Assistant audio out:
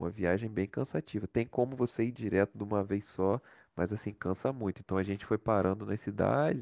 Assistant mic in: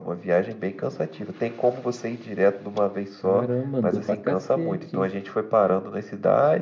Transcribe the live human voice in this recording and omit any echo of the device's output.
Caramba, andou pra cacete,

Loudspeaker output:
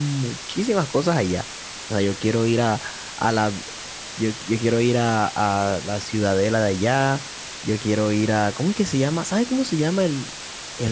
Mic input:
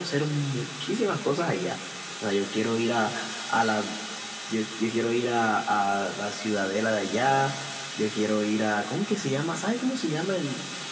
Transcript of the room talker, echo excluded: none

